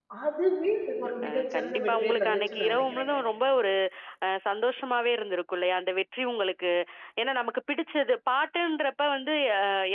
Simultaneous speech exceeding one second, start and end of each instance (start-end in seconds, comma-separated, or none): 1.2-3.2